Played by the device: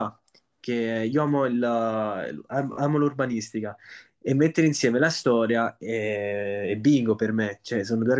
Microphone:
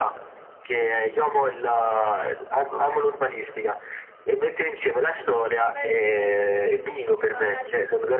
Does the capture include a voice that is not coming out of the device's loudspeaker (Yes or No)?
Yes